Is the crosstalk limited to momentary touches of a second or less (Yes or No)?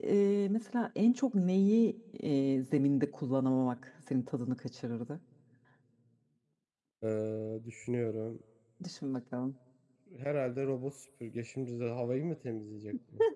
Yes